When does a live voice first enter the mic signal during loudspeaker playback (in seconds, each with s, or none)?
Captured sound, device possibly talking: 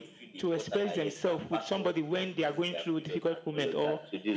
none